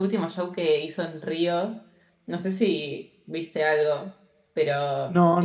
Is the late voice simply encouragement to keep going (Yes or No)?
No